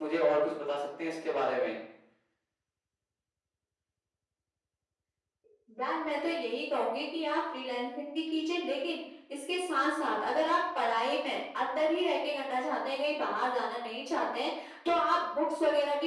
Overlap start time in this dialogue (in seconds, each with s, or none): none